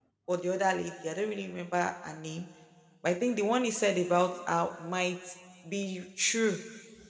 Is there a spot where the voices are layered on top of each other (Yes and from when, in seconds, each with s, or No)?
No